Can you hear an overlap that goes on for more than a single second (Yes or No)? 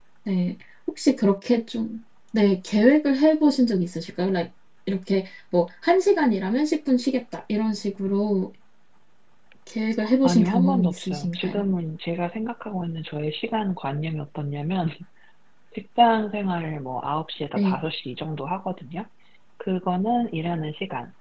Yes